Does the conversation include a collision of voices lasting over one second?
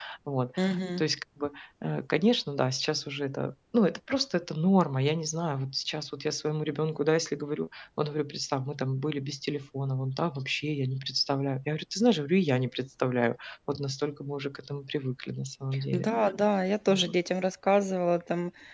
No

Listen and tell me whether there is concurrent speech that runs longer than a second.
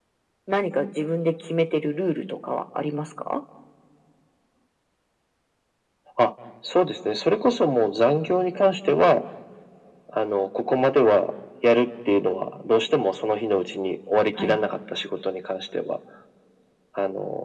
No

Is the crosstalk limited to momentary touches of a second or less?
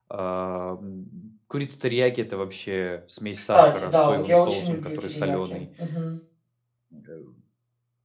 No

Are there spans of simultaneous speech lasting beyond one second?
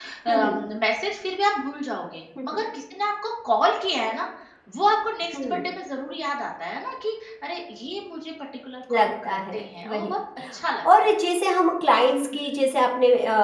Yes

